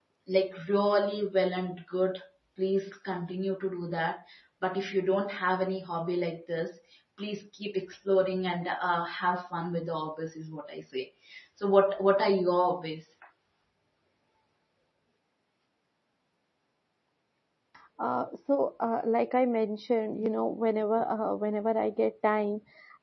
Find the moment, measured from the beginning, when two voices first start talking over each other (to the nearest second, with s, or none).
none